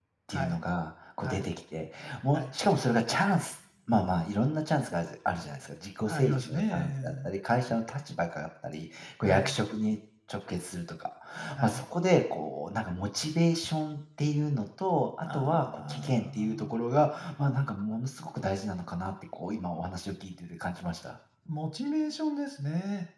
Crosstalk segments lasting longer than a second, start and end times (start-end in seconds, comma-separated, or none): 6.1-7.3, 15.3-16.8